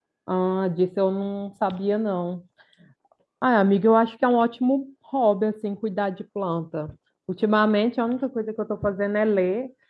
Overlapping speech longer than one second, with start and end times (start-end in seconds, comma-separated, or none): none